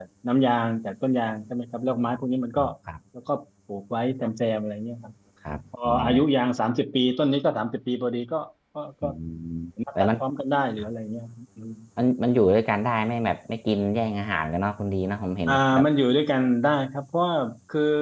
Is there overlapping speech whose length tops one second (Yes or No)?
No